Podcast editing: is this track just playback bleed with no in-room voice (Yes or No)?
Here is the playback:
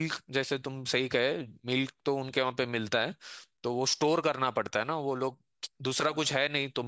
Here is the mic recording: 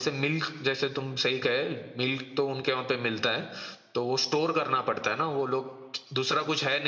Yes